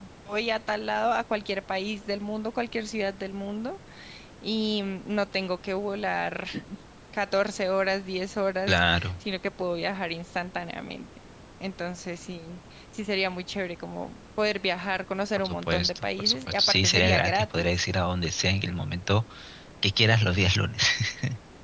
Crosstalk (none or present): present